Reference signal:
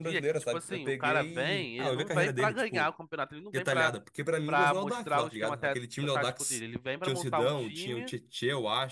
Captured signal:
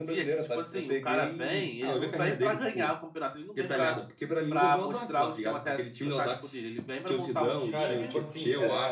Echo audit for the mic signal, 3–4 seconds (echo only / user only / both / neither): echo only